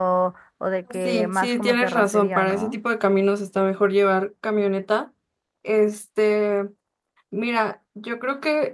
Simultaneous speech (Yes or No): Yes